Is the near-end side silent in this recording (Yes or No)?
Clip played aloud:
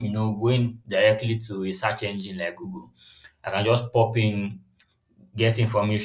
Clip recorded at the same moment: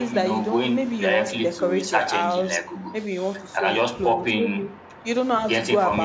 No